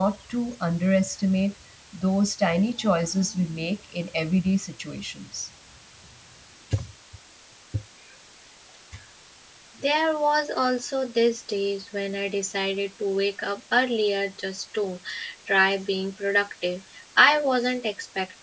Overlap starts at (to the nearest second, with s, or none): none